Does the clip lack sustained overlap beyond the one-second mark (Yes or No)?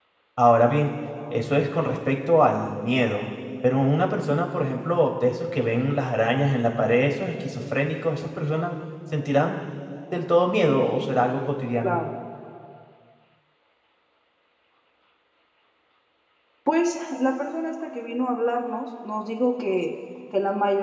Yes